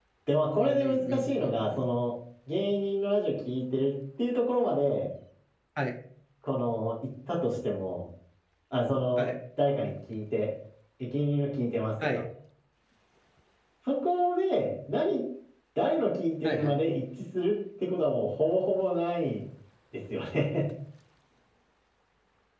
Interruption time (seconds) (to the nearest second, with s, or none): 1 s